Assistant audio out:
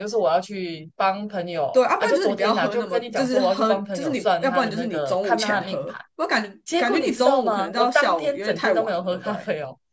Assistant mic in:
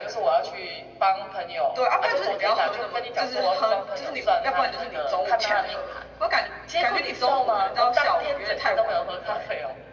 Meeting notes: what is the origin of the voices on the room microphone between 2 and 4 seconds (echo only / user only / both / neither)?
echo only